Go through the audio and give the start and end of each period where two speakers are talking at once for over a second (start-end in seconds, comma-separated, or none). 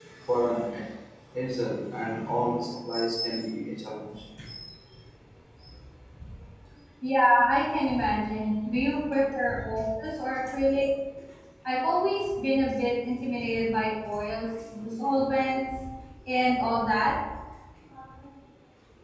none